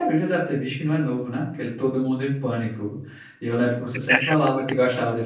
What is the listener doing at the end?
listening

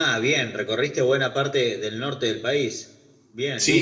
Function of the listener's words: taking over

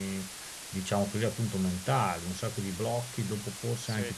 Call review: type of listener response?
taking over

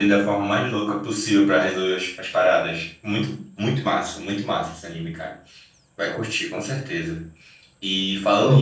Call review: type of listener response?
listening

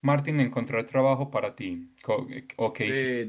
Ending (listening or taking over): taking over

